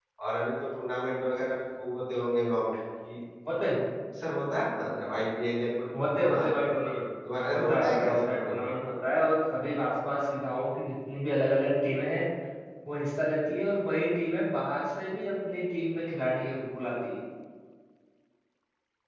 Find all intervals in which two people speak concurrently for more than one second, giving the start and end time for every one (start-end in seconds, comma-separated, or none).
7.4-8.7